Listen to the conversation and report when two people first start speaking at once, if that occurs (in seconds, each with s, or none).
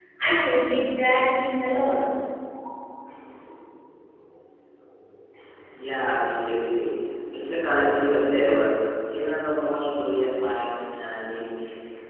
none